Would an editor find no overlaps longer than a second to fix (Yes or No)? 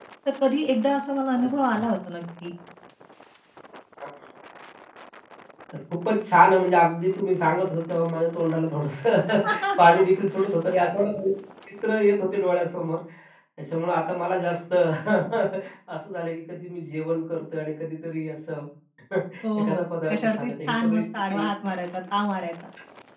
No